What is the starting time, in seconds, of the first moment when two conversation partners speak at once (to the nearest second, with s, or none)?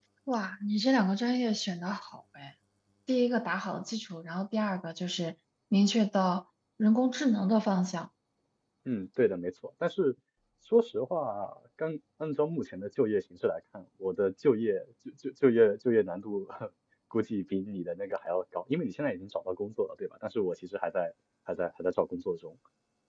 none